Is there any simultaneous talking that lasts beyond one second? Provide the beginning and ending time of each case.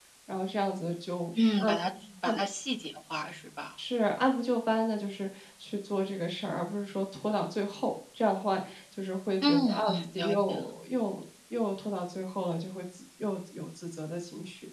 9.4-10.7

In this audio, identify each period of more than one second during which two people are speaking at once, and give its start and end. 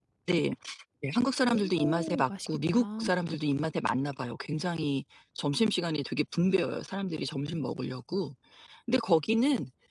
1.5-3.0

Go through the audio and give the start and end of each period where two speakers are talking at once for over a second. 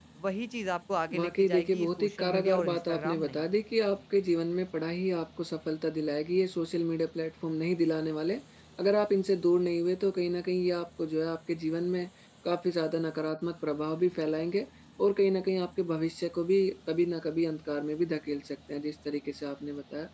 1.1-3.5

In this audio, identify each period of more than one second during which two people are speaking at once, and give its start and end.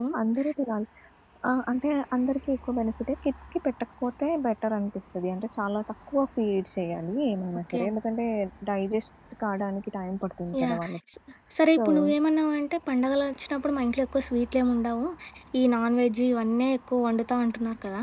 none

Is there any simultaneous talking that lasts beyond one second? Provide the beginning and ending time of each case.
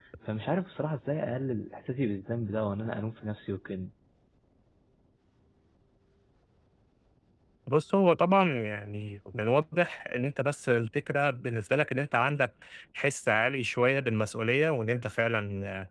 none

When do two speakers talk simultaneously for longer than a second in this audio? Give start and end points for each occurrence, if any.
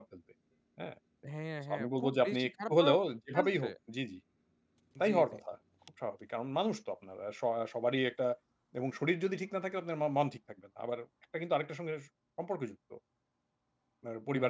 1.7-3.0

